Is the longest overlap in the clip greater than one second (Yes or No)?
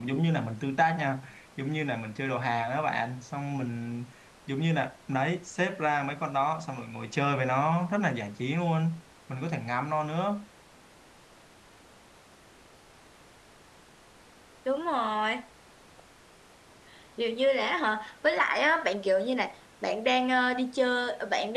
No